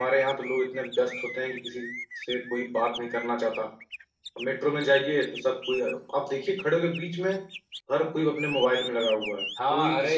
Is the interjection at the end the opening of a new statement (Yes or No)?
Yes